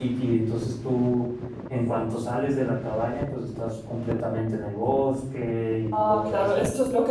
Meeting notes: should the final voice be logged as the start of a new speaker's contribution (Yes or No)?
Yes